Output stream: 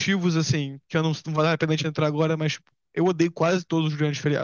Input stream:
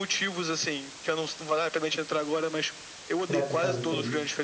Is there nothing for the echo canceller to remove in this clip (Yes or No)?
No